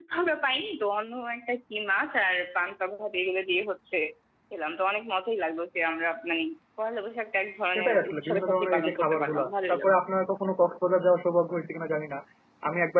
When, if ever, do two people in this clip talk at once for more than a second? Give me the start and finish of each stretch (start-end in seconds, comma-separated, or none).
7.7-10.0